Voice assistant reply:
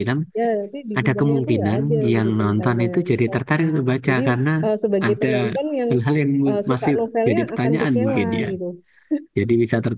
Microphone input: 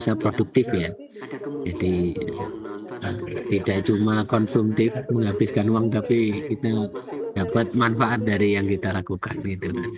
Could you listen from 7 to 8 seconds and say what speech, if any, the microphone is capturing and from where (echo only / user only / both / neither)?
both